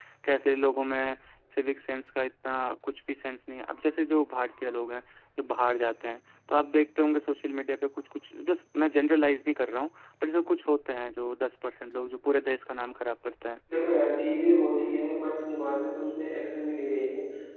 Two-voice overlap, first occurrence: none

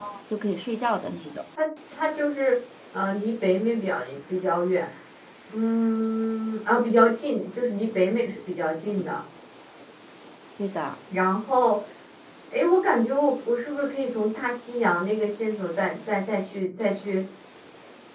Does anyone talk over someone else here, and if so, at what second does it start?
none

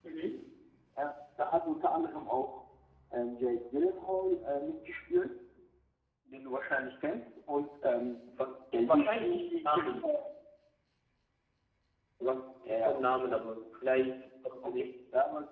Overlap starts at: 8.9 s

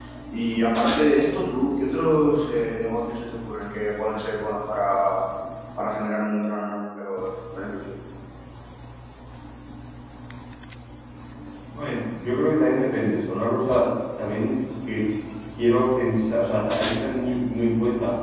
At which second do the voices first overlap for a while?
none

